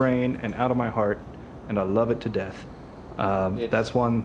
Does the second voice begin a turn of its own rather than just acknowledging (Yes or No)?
No